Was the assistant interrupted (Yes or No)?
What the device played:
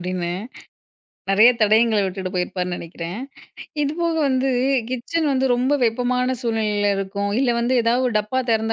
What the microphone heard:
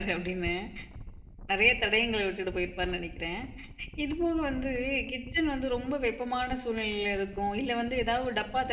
No